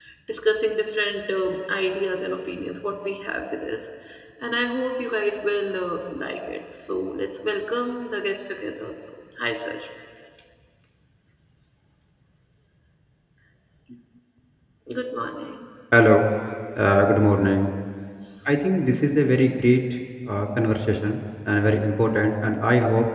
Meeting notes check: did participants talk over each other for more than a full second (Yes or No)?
No